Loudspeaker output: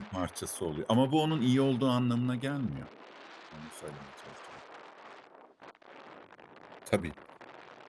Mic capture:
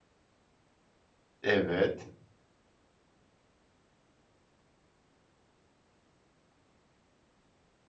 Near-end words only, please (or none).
Evet.